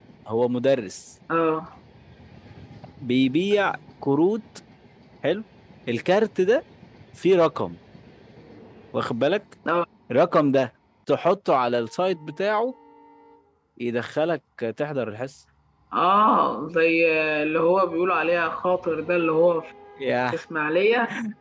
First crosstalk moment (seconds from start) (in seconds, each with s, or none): none